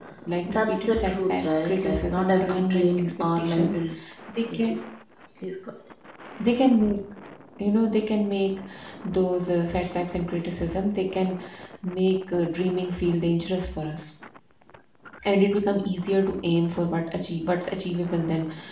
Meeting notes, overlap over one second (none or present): present